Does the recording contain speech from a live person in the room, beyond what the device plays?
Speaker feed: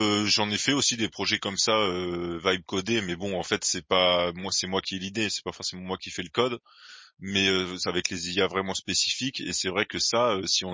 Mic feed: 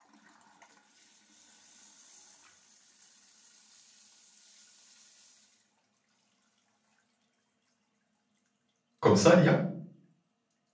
Yes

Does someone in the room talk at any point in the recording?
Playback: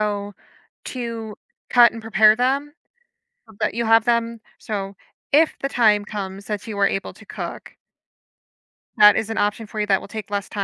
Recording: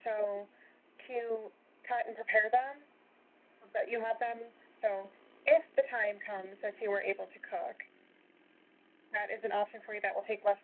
No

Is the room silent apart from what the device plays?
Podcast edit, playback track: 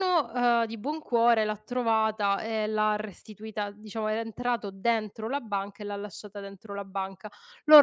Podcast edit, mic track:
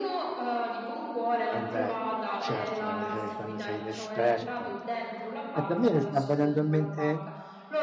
No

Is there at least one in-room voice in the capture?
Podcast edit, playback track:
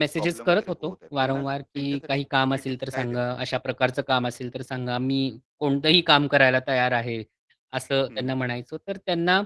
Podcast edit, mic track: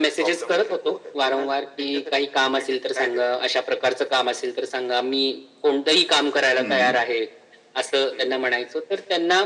Yes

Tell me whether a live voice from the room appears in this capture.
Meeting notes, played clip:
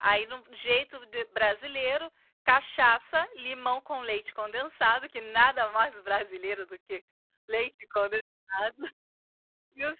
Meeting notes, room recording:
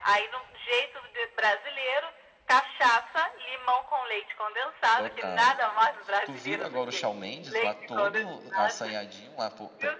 Yes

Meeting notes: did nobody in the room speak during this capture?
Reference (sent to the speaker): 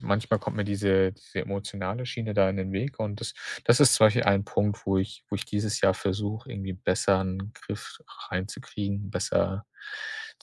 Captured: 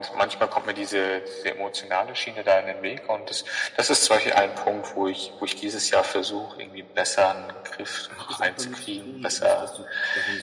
No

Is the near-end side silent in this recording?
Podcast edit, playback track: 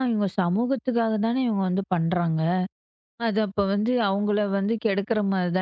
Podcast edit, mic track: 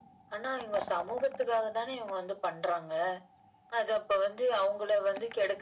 Yes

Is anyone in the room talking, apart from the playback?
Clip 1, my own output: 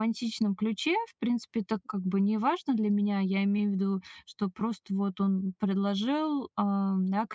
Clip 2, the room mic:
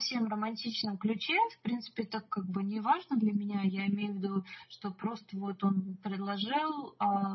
No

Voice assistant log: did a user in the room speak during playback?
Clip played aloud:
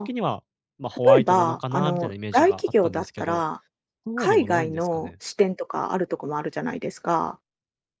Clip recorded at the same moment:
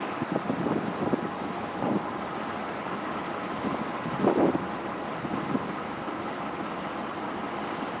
No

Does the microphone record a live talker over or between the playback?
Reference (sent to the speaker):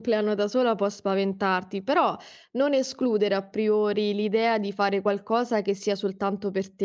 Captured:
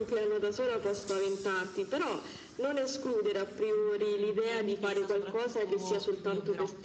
Yes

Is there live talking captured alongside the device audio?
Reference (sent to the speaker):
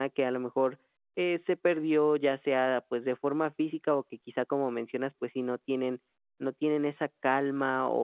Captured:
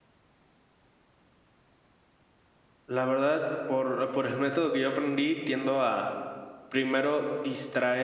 Yes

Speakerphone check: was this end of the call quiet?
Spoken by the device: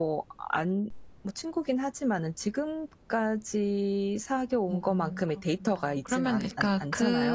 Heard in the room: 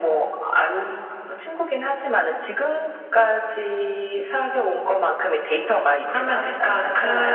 Yes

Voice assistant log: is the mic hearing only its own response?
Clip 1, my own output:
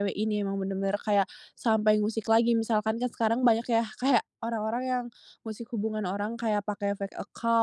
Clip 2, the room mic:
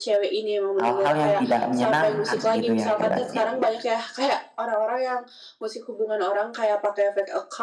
No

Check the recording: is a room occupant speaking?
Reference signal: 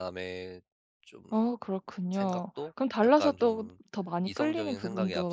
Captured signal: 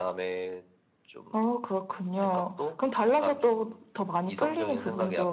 No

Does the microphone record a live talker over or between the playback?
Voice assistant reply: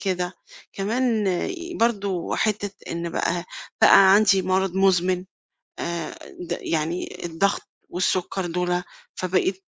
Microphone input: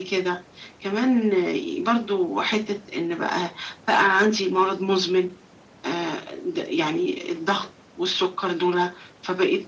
No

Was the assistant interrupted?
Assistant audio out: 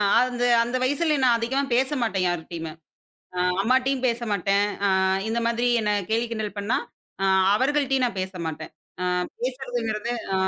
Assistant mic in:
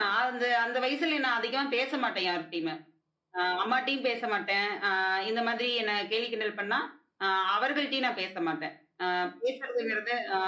No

